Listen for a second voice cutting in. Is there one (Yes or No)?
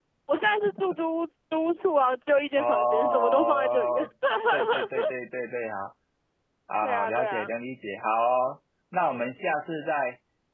Yes